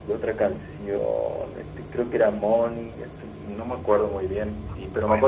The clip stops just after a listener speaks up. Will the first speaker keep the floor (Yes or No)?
Yes